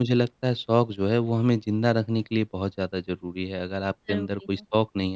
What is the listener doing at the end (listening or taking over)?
listening